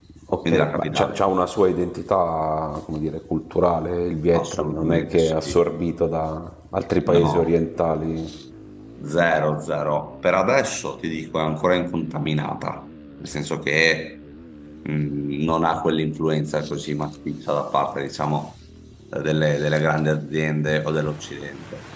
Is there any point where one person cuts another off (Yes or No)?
Yes